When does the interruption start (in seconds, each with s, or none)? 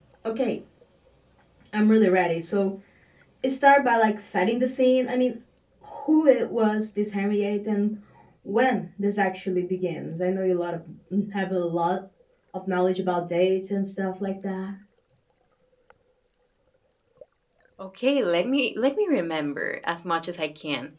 none